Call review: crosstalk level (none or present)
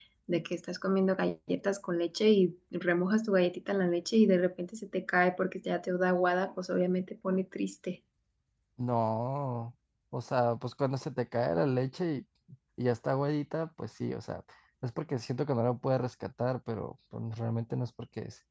none